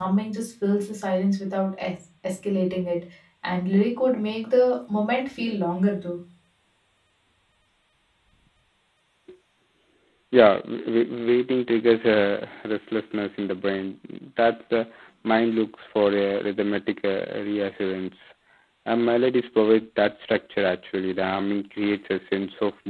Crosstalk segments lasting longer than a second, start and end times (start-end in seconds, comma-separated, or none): none